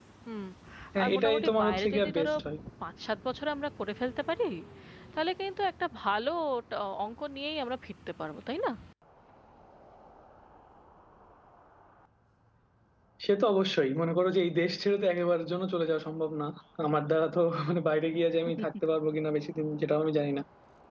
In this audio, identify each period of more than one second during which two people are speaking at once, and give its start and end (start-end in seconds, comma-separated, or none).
1.0-2.3